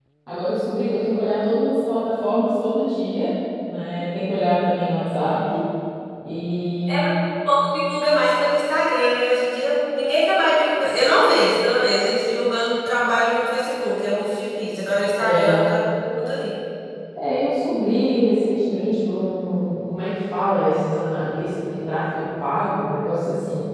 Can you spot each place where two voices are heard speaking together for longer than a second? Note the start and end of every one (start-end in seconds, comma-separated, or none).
none